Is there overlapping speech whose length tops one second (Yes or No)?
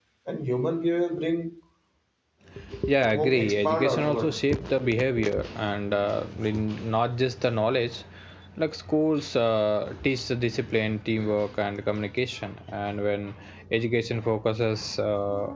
Yes